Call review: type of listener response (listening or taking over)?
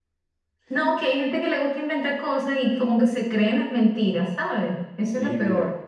taking over